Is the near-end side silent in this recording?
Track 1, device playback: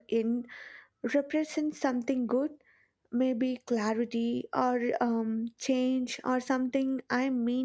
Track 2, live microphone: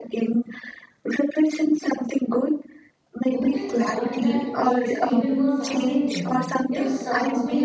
No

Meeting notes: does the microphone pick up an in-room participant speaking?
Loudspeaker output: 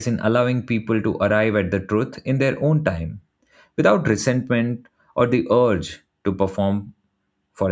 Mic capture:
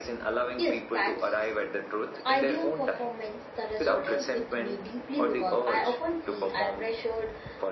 Yes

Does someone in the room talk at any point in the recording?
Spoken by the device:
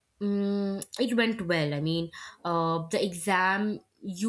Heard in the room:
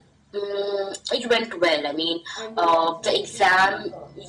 Yes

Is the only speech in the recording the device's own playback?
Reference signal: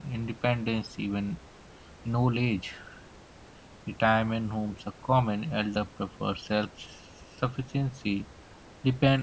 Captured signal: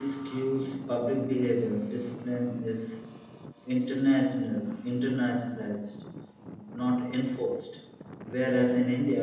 No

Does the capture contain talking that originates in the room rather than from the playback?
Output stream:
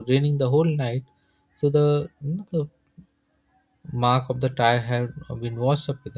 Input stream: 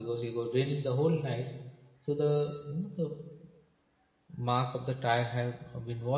No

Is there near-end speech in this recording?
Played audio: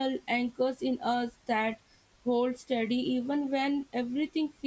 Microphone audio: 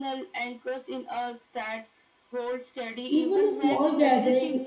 Yes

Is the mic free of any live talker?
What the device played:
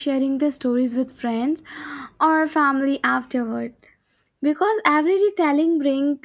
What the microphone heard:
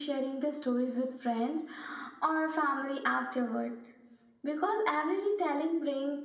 Yes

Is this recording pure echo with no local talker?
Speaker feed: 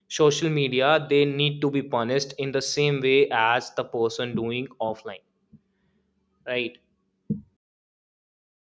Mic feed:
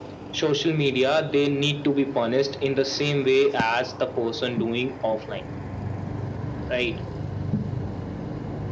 Yes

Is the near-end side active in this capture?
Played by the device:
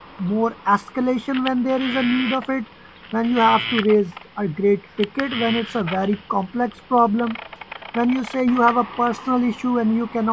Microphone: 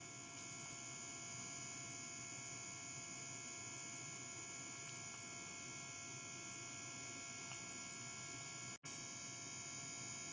No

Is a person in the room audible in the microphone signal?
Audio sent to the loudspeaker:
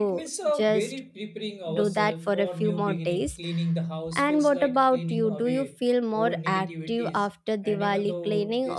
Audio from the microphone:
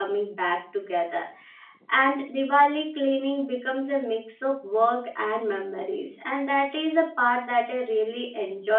Yes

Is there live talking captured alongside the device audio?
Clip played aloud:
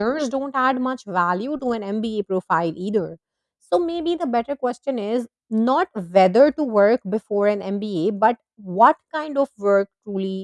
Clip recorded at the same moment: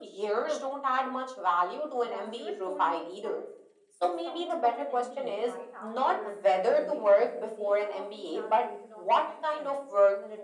Yes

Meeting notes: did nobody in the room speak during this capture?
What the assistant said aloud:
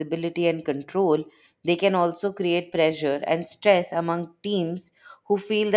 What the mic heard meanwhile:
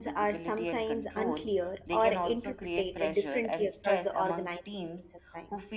No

